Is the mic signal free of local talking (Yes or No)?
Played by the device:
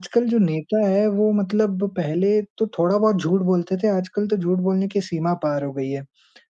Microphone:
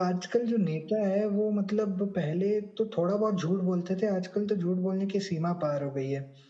Yes